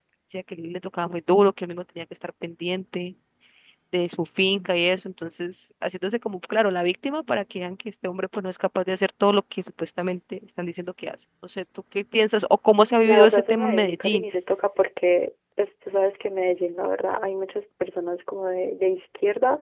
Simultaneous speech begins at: 13.1 s

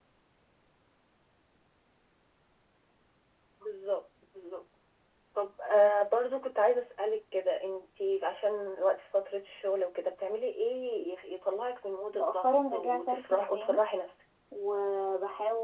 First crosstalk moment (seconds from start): 12.1 s

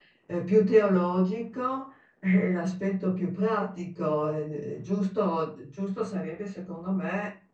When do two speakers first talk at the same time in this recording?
none

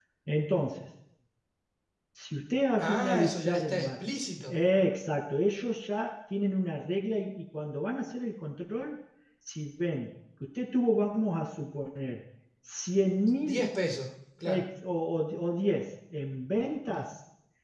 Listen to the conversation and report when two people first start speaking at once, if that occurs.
2.8 s

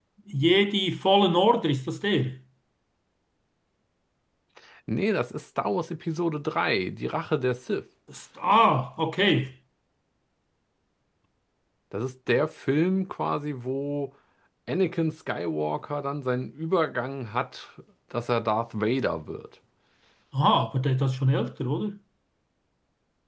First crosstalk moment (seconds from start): none

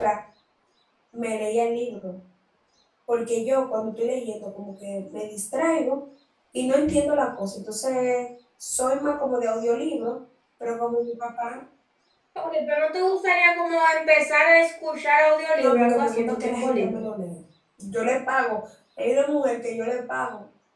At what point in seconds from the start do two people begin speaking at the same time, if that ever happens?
15.6 s

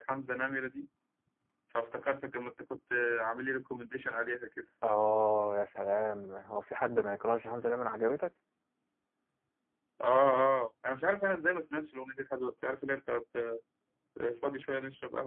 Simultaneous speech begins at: none

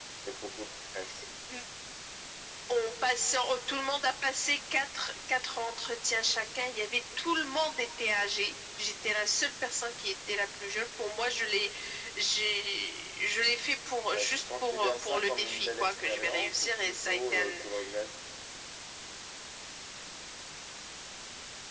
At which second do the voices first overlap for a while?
14.1 s

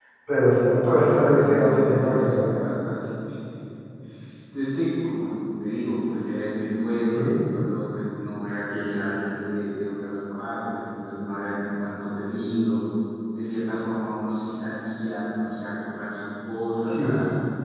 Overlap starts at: 0.8 s

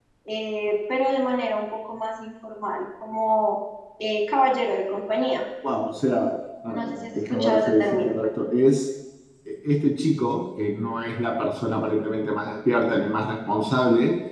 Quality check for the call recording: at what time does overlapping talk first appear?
6.7 s

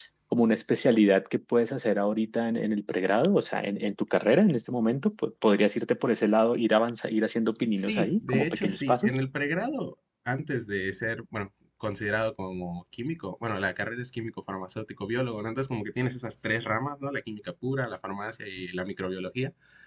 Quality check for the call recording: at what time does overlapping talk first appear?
7.7 s

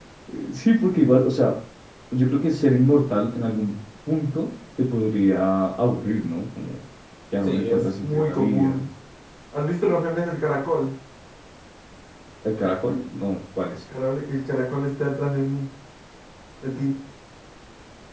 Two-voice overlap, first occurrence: 7.5 s

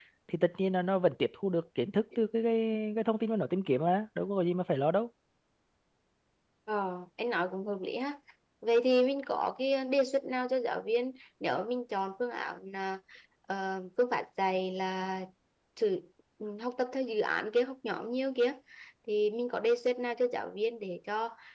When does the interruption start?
none

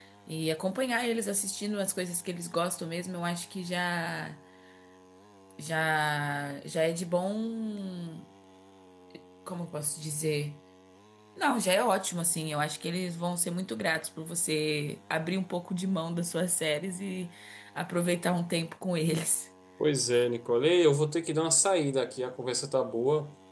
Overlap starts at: none

